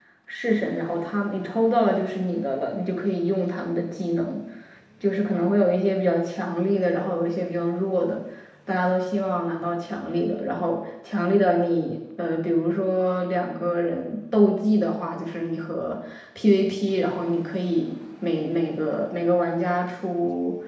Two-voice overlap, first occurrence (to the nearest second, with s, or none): none